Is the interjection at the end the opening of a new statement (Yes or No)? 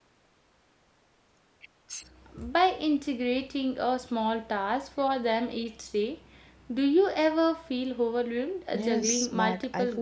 Yes